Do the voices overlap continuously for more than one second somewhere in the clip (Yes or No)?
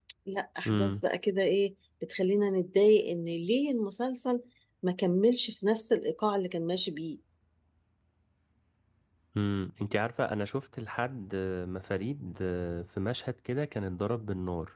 No